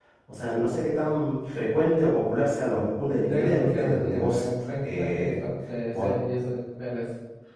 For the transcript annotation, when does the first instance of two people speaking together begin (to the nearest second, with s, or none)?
3 s